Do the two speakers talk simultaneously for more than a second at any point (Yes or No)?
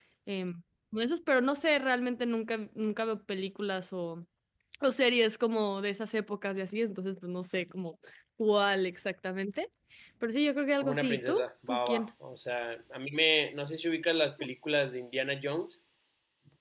Yes